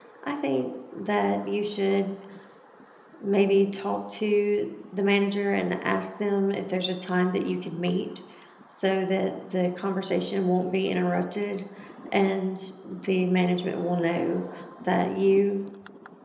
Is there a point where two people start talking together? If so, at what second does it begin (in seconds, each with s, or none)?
none